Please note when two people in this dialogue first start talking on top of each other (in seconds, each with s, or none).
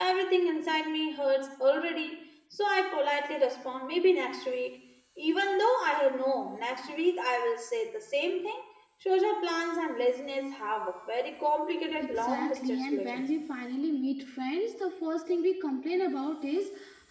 11.9 s